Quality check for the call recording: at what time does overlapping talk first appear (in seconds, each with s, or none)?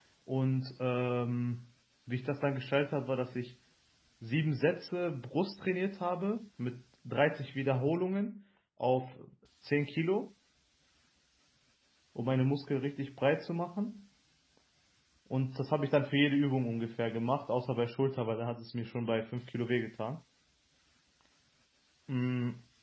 none